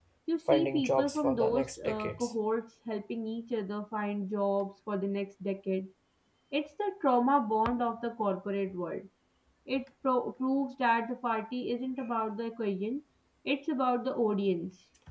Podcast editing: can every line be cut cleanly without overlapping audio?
No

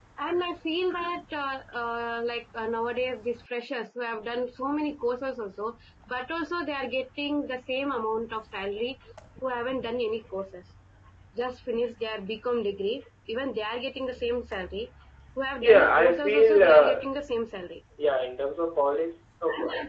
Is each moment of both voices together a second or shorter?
No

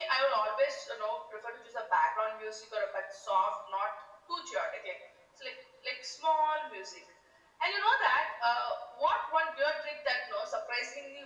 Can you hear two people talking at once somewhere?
No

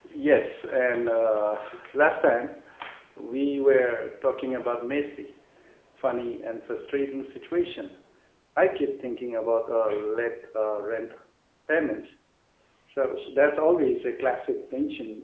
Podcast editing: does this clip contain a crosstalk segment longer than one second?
No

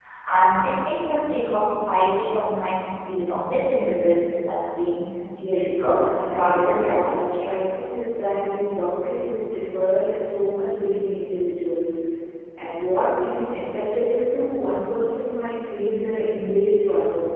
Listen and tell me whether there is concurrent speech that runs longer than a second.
Yes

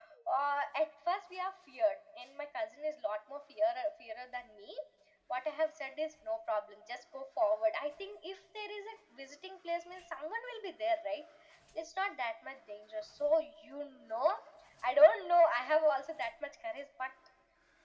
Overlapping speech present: No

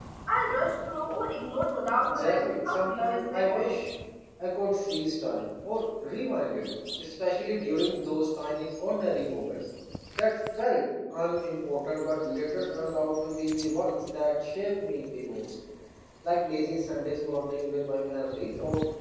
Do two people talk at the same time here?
Yes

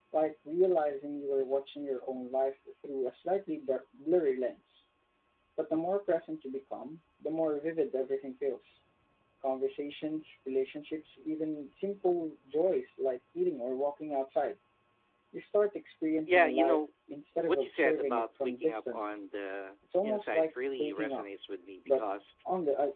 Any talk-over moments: Yes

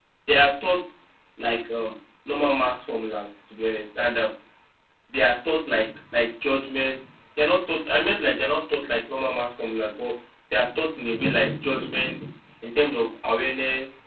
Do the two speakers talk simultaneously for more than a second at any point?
No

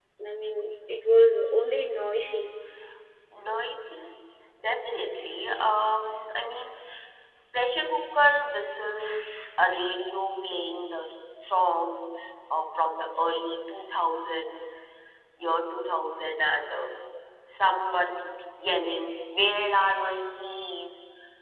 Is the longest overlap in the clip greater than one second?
No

